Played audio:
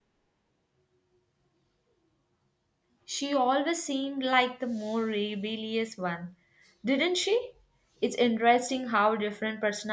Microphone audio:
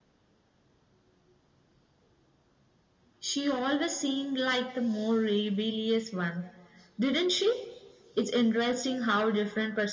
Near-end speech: none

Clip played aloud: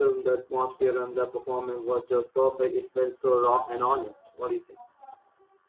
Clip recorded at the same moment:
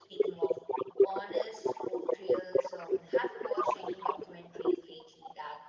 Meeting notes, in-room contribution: present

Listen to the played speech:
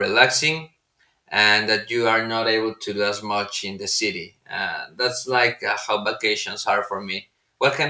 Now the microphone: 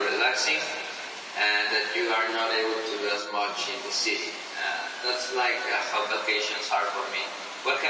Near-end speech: none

